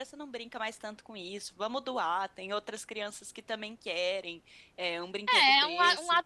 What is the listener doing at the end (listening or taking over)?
taking over